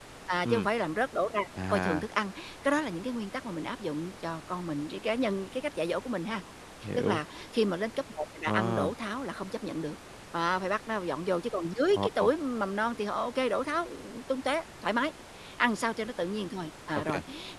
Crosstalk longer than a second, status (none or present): none